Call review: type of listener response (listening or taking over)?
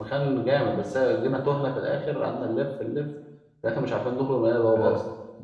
taking over